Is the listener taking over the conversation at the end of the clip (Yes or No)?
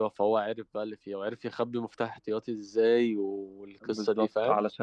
Yes